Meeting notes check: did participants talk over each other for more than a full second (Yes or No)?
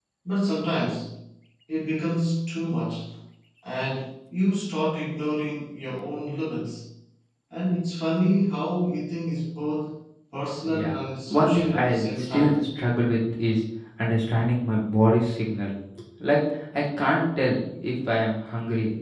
Yes